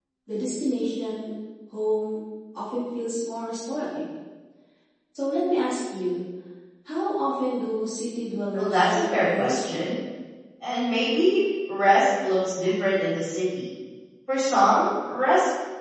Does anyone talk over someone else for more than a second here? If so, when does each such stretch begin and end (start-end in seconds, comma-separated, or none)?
8.6-9.9